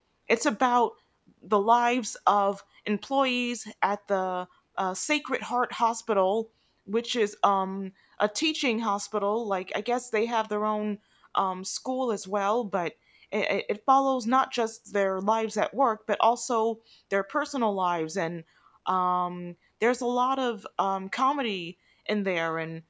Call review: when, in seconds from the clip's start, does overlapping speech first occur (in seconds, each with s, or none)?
none